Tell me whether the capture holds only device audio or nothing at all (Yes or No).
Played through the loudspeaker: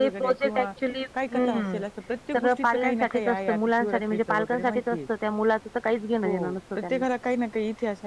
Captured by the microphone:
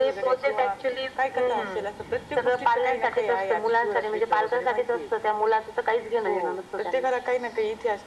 Yes